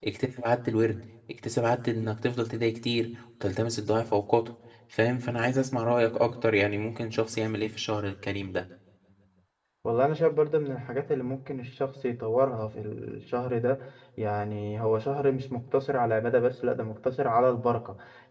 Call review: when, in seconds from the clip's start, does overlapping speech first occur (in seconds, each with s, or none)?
none